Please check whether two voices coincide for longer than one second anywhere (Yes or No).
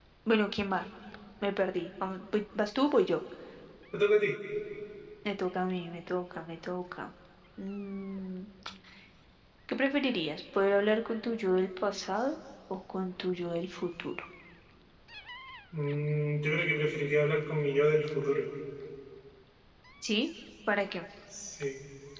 No